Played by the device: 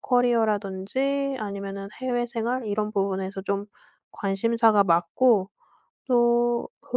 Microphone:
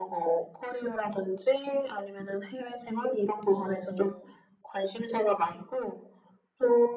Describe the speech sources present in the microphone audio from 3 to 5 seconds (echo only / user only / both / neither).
both